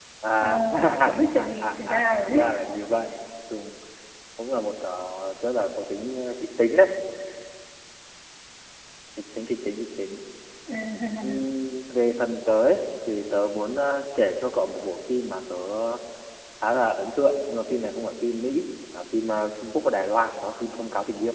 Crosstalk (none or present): present